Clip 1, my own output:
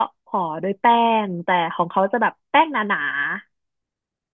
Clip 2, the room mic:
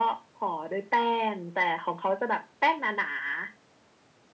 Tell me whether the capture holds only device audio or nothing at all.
Yes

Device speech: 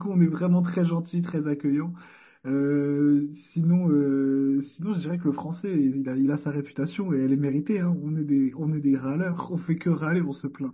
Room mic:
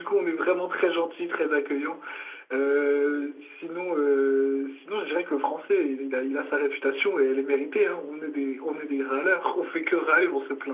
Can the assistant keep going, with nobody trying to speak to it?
Yes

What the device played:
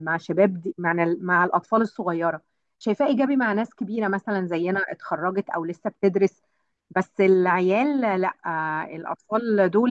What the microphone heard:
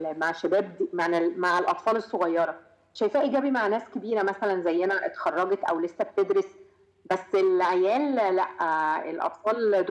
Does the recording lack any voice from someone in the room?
Yes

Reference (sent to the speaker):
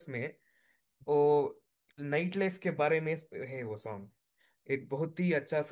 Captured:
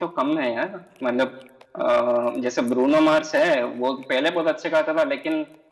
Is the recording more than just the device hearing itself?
Yes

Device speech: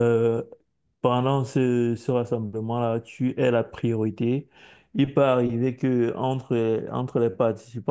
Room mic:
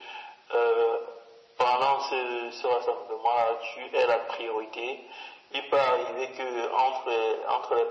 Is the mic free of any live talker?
Yes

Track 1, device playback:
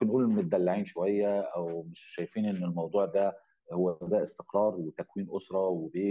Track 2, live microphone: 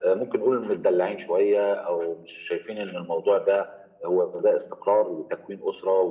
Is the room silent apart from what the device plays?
Yes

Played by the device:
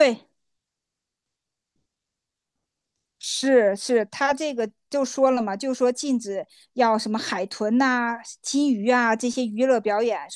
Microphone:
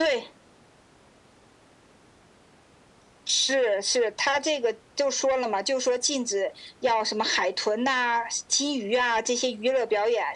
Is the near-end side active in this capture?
No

